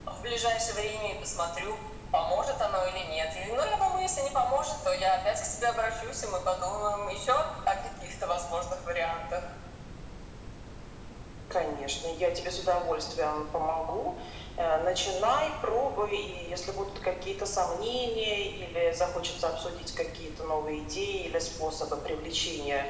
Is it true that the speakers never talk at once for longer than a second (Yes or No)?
Yes